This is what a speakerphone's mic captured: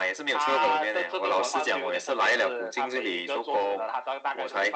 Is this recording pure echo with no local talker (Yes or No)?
Yes